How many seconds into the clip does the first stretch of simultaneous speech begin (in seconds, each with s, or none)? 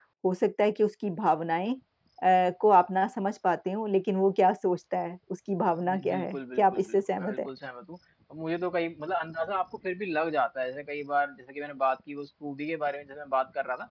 5.8 s